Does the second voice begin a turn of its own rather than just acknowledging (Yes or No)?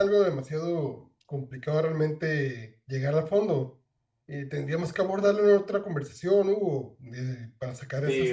Yes